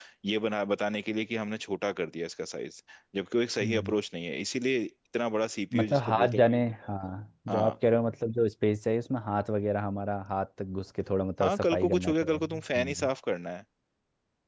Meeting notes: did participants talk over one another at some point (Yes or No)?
Yes